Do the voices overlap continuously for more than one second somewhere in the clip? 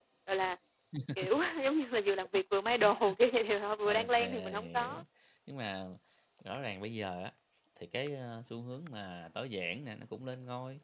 Yes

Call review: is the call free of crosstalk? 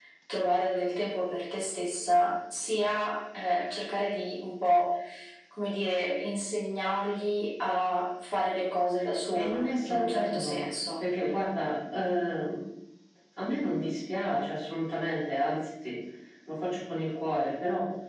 No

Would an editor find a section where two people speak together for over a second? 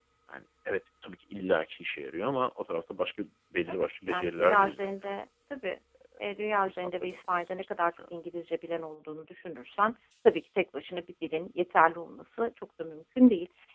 Yes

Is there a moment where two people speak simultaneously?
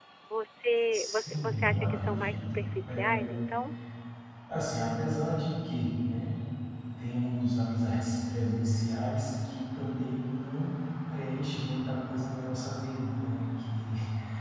Yes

